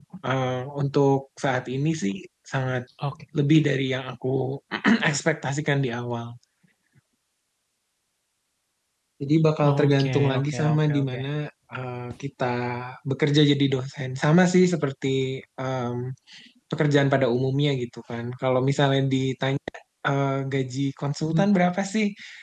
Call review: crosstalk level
present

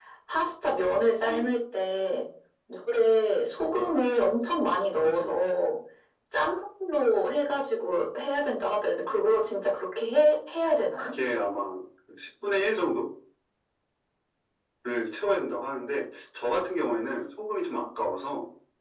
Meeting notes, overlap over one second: none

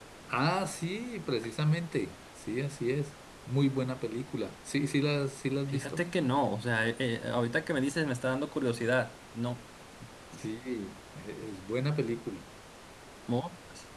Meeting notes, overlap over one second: none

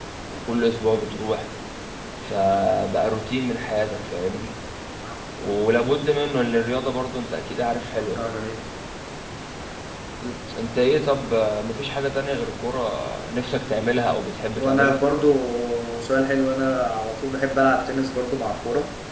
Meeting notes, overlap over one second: none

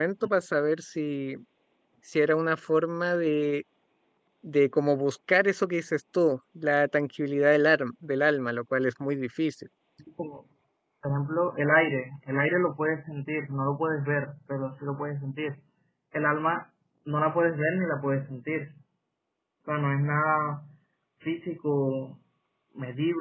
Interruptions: none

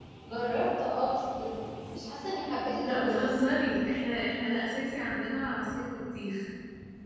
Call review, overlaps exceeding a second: none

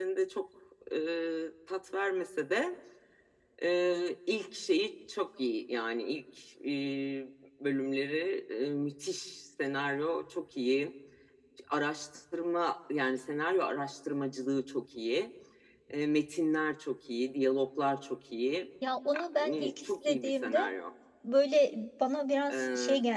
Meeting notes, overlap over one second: present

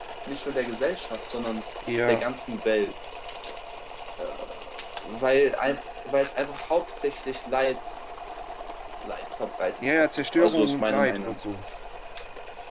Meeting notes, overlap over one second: present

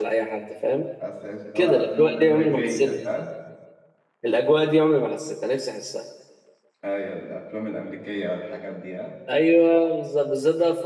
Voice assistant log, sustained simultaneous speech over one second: present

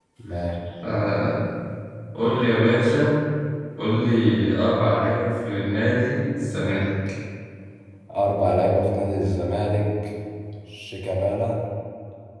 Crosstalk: none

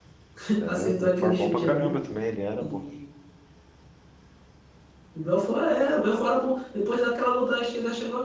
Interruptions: present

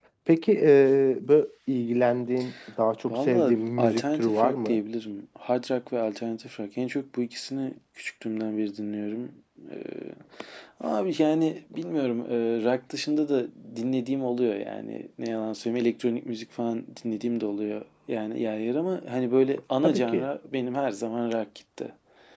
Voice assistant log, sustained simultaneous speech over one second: present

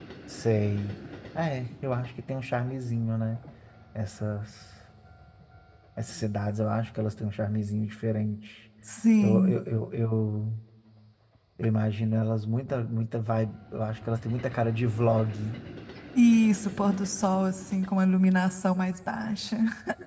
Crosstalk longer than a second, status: none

